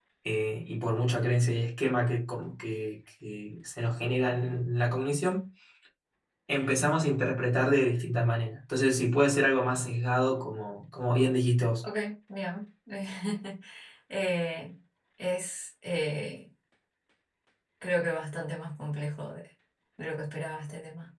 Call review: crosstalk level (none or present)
none